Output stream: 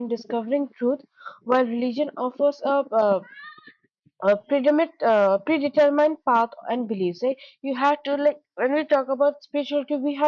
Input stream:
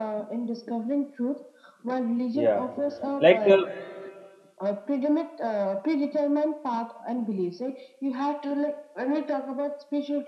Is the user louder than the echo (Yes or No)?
Yes